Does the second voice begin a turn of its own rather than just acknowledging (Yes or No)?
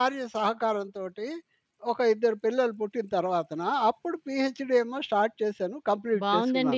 Yes